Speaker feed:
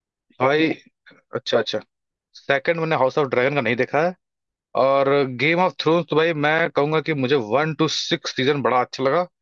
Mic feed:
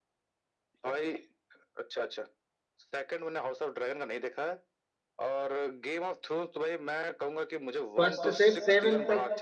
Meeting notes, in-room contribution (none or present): present